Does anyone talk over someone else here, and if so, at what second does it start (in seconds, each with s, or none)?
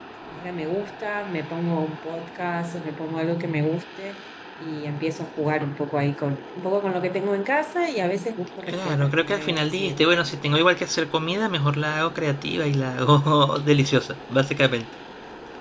8.7 s